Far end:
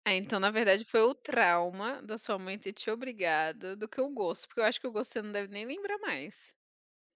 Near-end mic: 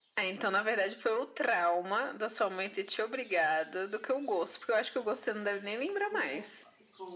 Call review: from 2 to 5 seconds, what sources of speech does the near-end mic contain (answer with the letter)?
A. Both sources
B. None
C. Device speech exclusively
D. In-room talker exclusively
C